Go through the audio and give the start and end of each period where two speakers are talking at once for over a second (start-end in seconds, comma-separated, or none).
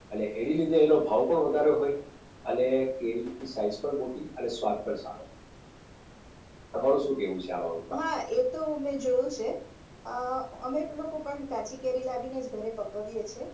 none